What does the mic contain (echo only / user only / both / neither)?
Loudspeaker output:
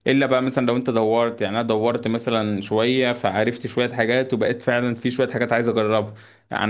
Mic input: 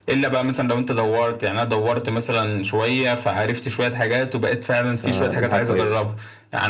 both